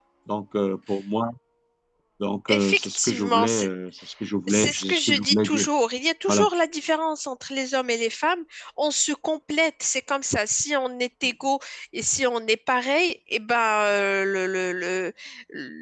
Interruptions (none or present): present